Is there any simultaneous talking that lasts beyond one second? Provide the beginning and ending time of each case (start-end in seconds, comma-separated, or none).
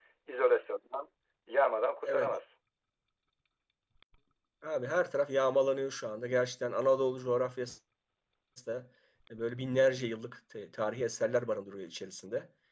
none